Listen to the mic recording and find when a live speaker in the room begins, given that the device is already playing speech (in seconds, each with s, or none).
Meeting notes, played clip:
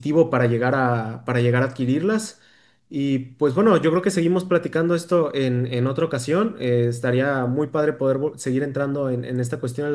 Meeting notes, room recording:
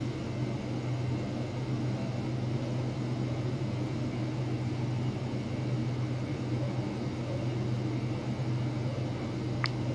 none